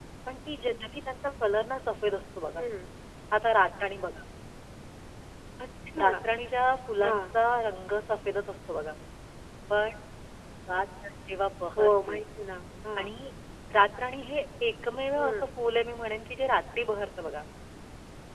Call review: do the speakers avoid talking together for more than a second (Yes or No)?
Yes